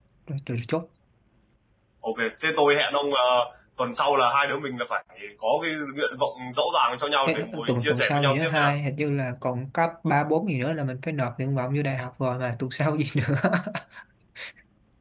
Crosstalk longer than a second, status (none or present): present